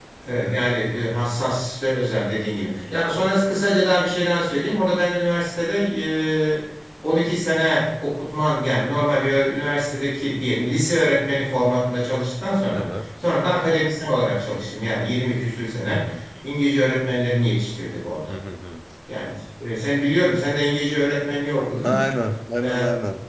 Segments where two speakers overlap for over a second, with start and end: none

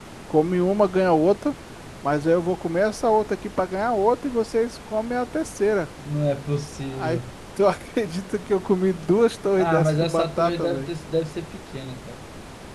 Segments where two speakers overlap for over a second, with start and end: 9.6-10.9

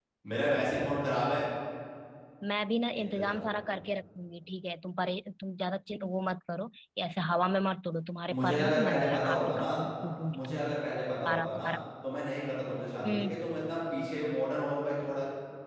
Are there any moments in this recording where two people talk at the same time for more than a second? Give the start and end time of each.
8.3-9.8

